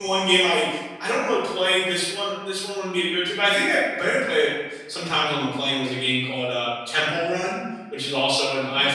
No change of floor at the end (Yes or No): Yes